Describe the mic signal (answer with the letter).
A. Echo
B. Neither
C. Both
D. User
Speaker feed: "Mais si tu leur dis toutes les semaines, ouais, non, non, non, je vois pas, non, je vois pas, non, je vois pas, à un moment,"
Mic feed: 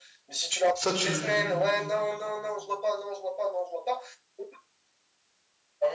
C